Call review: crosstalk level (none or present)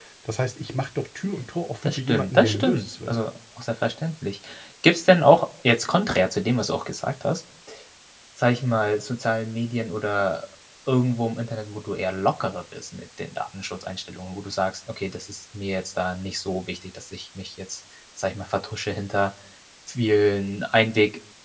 present